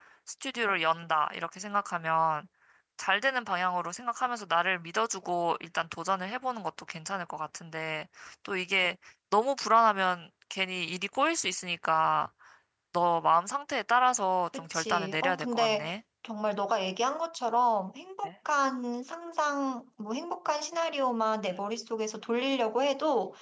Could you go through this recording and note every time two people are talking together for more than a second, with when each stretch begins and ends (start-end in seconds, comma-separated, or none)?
14.5-15.9